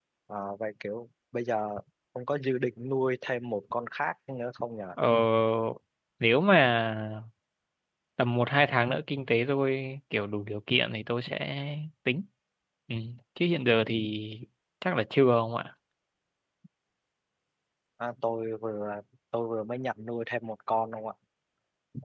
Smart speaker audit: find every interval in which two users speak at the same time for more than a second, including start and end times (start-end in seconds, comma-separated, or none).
none